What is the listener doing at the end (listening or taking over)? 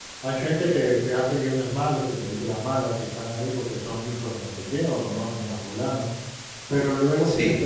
listening